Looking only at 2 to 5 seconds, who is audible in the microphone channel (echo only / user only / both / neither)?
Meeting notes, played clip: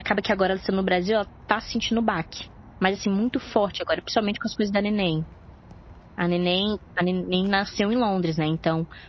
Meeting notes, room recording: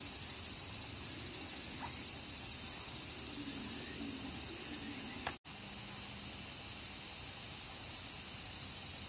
neither